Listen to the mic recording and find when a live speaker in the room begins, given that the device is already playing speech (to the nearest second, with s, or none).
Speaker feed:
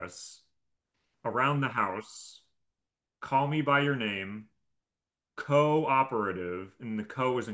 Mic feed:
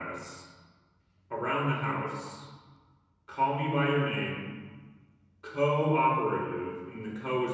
none